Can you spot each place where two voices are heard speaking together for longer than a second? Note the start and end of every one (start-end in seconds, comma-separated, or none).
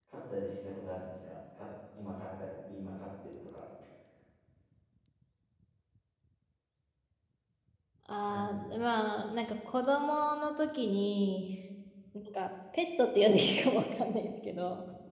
none